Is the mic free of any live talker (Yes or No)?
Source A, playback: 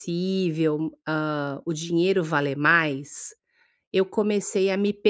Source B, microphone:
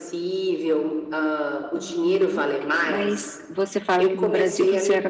No